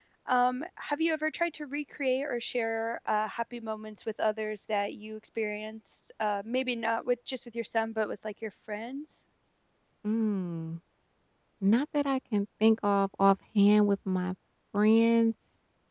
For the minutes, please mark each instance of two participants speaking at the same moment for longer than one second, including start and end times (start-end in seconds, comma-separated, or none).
none